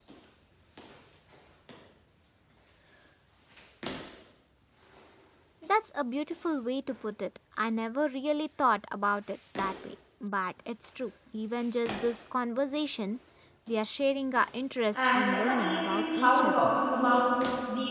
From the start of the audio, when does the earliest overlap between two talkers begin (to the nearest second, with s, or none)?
15 s